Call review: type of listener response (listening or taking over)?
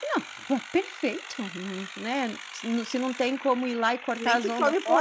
taking over